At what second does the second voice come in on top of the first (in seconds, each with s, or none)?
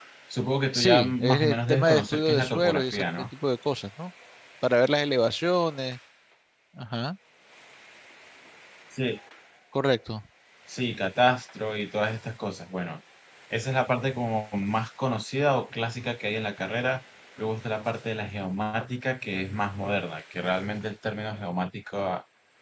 0.7 s